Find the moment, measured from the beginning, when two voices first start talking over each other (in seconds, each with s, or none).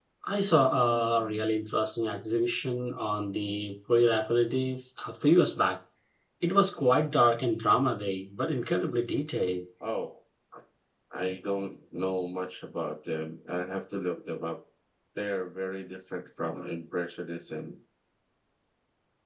none